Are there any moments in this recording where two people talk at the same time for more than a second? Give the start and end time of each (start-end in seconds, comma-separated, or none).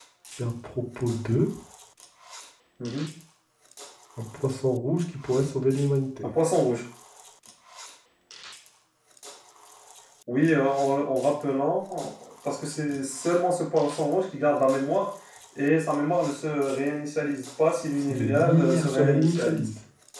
18.0-19.7